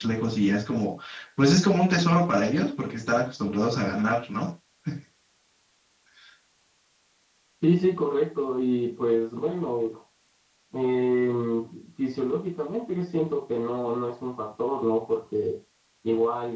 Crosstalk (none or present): none